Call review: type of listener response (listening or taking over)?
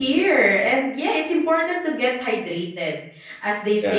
listening